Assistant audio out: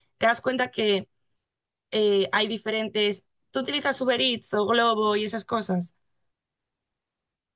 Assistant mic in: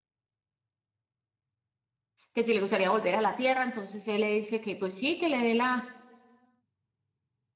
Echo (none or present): none